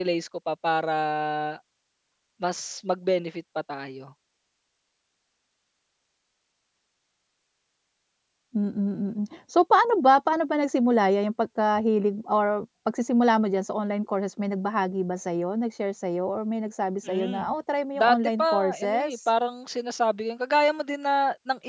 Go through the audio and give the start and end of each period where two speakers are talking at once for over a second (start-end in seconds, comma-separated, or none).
18.0-19.3